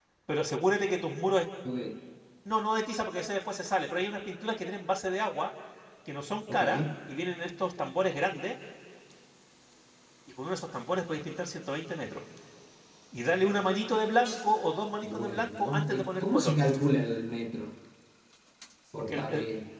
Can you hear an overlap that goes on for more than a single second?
Yes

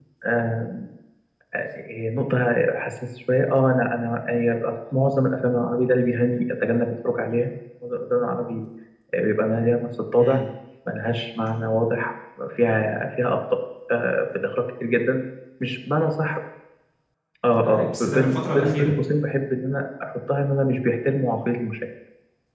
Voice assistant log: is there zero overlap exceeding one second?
No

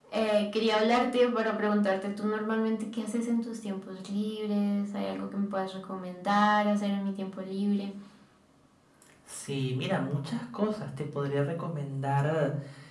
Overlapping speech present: No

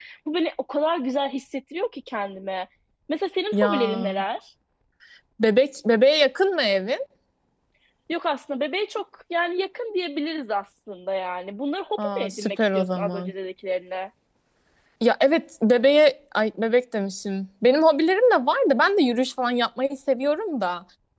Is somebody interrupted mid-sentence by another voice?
Yes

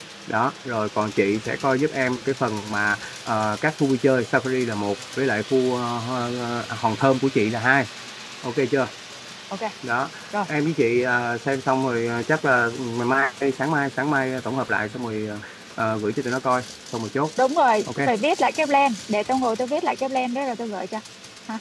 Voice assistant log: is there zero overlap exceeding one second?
Yes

